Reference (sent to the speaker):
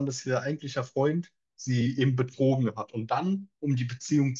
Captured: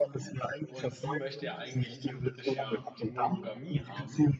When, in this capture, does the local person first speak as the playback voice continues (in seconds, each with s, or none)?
0.7 s